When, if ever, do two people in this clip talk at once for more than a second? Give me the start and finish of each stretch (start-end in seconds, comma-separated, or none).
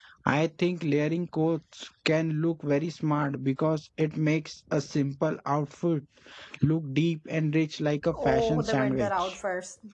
8.1-9.4